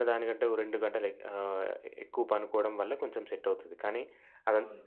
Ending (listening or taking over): listening